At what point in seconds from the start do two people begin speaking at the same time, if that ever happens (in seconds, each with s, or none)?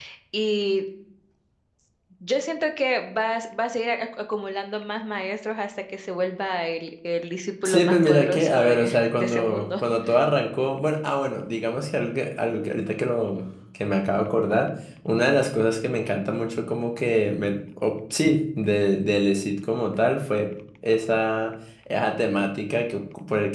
7.7 s